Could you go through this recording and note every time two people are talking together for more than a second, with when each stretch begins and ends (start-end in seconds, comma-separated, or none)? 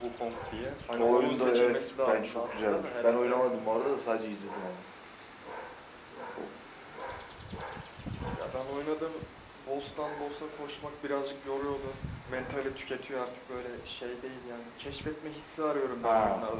1.0-3.4